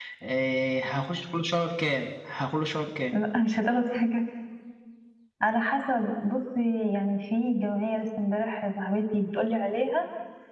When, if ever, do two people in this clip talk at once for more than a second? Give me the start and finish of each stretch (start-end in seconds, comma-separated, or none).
none